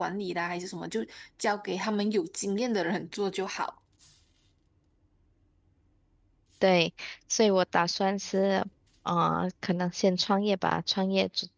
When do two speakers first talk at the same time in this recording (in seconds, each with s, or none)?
none